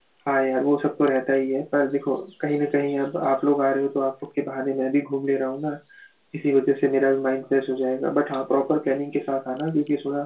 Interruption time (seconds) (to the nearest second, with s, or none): none